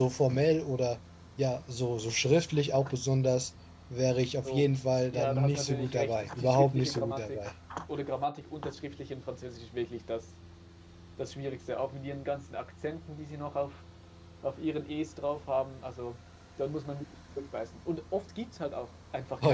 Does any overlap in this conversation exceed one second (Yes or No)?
Yes